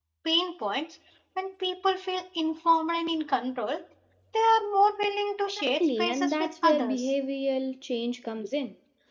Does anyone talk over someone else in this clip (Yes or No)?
Yes